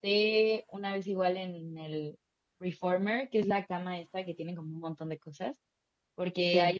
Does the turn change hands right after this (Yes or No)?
No